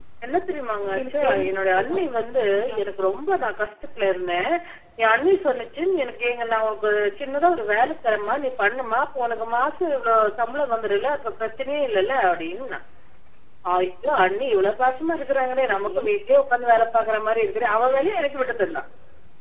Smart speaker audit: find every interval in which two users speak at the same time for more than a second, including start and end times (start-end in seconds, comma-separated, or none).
0.8-2.1